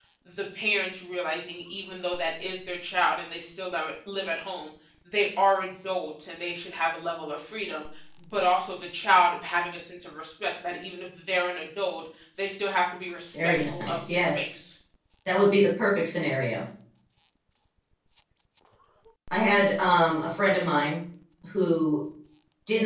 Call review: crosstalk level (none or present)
present